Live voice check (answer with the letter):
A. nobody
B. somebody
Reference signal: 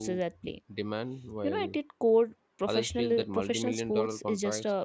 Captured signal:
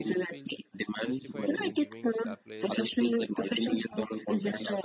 B